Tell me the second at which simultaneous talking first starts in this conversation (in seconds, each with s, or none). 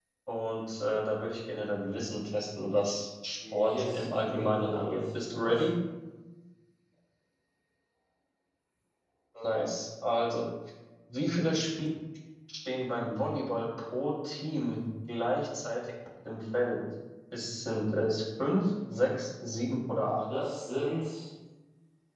3.4 s